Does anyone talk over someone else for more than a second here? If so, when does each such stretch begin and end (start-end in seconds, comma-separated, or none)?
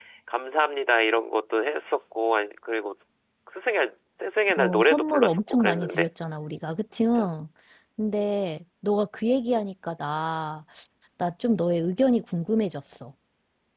4.6-6.1